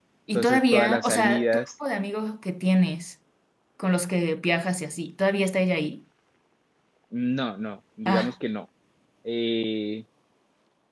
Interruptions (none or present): present